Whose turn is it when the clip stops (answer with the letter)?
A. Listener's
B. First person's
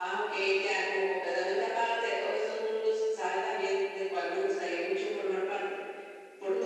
B